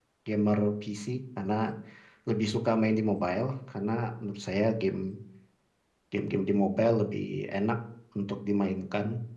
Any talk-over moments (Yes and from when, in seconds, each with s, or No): No